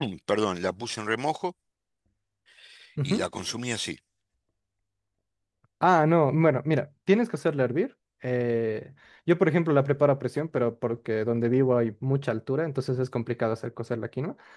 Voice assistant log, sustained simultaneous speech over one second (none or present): none